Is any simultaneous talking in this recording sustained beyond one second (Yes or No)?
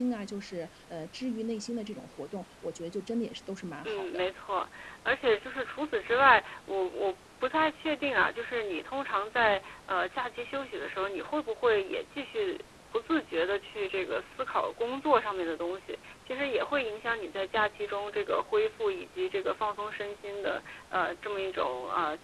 No